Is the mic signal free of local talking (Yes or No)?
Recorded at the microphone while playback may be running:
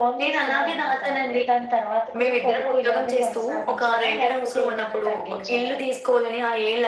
Yes